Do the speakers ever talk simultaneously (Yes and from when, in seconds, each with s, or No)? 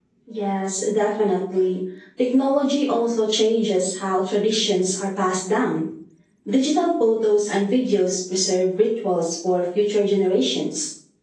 No